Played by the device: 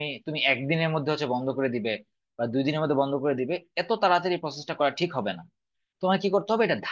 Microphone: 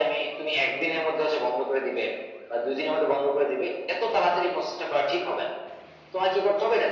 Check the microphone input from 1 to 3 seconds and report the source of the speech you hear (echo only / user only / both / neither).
echo only